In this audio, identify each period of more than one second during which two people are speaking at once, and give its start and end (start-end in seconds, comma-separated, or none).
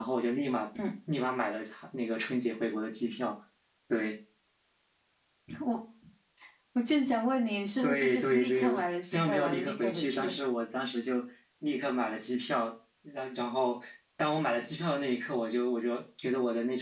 7.8-10.3